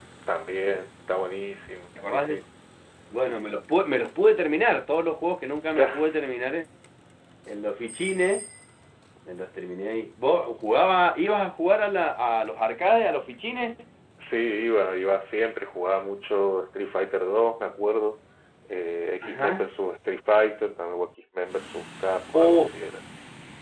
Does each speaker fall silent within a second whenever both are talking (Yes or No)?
Yes